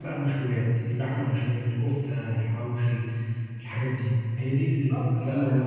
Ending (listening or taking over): taking over